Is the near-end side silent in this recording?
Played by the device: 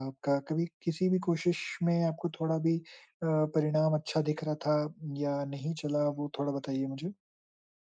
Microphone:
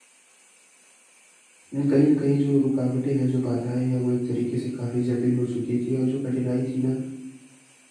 No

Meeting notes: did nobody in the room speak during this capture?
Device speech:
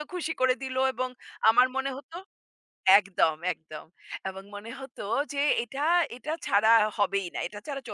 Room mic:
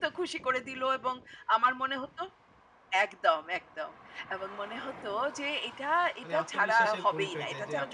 No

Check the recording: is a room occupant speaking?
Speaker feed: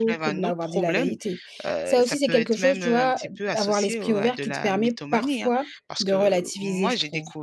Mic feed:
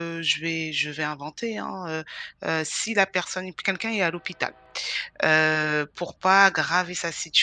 Yes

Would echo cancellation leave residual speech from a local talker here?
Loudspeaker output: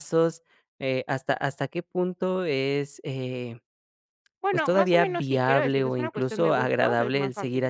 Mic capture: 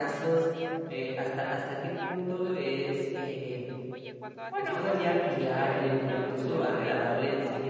Yes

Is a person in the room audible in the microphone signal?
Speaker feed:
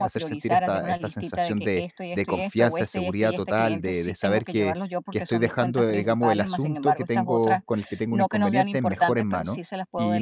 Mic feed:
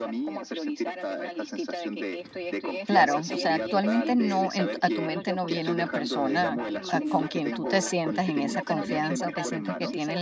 Yes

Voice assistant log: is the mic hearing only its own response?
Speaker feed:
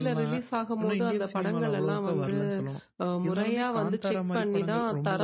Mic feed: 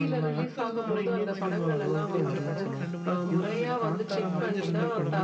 No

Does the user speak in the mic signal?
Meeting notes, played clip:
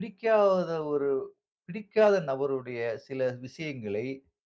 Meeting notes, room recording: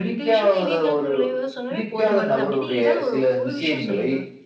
Yes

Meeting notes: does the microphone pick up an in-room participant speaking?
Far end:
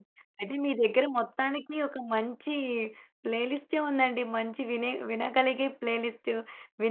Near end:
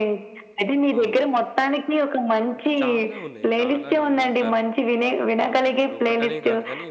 Yes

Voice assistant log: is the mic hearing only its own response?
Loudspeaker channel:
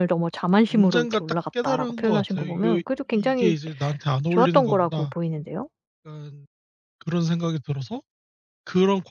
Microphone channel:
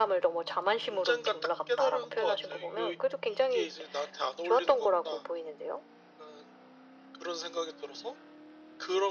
Yes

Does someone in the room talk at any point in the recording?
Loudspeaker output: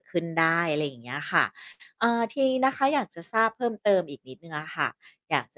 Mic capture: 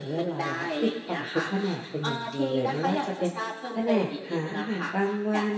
Yes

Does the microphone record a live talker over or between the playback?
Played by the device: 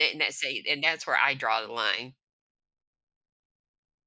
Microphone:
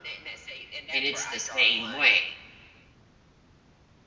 Yes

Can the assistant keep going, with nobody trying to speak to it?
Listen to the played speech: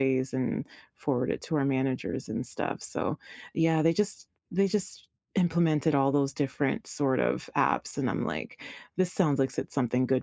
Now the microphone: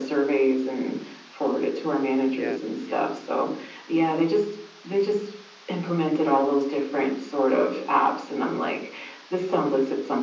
No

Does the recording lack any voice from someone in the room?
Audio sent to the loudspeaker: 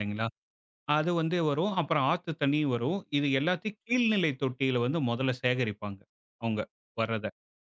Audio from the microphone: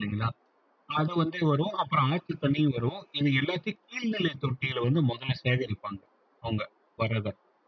Yes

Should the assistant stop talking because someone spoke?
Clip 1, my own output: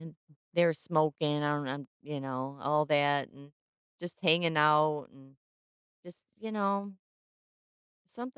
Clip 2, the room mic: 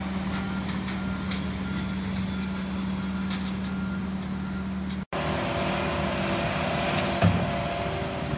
No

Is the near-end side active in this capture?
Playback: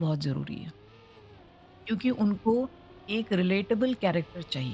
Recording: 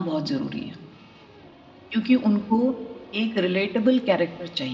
No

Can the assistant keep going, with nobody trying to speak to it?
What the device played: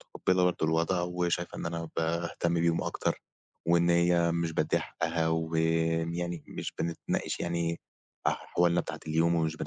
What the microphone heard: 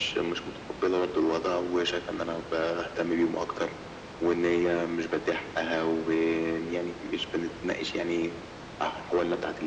Yes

